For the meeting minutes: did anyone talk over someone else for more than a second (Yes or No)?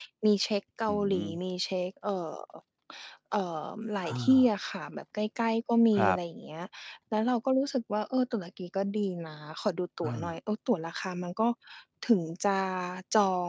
No